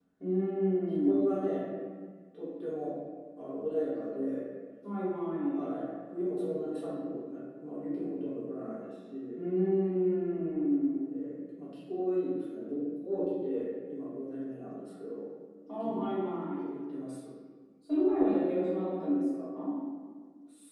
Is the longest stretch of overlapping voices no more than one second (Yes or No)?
Yes